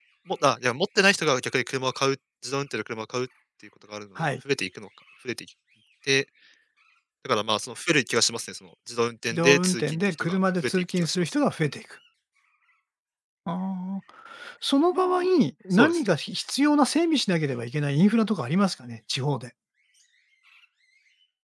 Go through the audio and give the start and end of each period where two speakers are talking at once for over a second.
9.2-11.3

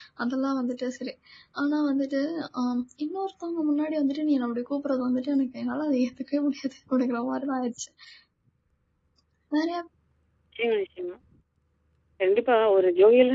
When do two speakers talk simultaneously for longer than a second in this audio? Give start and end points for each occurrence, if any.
none

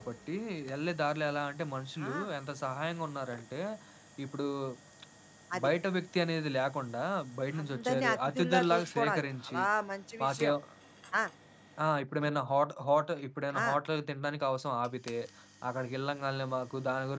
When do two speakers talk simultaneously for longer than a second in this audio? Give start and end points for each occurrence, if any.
7.6-9.6

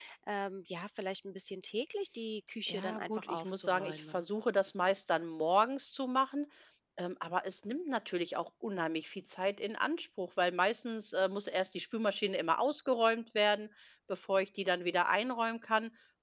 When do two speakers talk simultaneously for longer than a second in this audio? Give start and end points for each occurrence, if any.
2.7-4.2

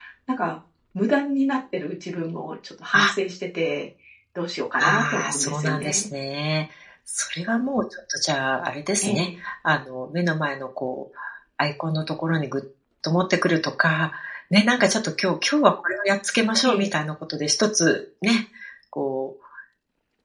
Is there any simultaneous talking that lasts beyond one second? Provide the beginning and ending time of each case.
4.8-6.1

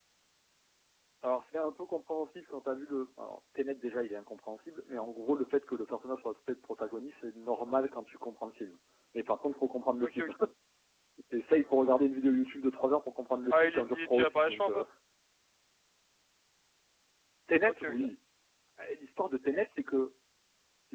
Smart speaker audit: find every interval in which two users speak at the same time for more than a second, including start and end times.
13.5-14.8

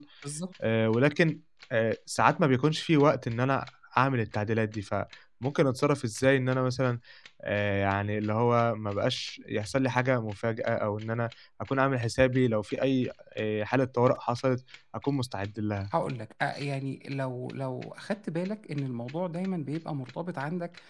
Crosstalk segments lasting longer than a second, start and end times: none

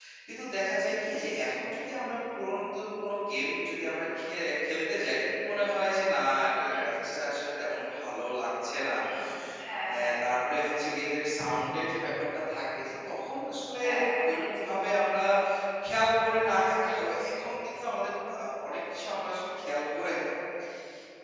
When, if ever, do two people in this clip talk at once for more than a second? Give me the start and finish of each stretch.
none

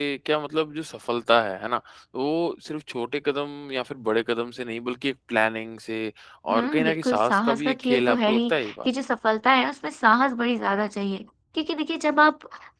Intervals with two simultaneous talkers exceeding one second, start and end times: 6.5-8.9

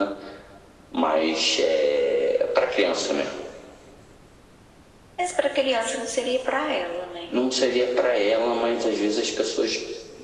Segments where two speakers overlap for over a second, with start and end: none

